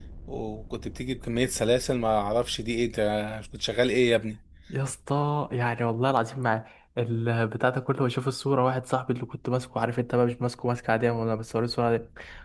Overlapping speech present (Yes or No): No